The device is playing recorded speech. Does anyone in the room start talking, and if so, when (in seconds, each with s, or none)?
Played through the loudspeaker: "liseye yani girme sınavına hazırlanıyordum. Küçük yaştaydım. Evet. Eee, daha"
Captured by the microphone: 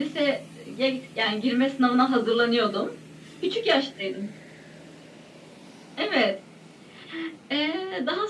none